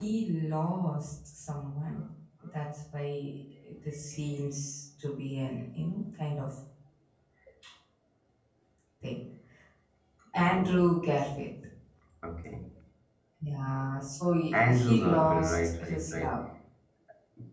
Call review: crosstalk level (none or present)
present